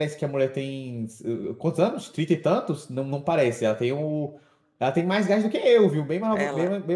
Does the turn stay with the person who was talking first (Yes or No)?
No